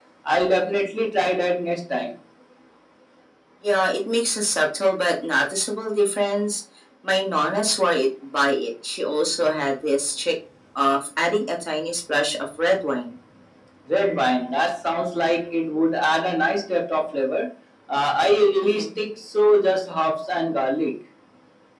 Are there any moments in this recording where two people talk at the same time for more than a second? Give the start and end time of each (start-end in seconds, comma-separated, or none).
none